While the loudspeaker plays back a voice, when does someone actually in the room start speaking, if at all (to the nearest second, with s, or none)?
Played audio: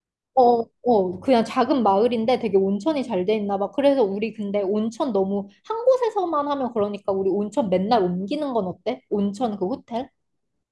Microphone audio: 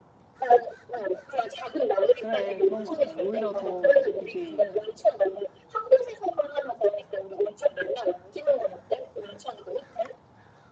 2 s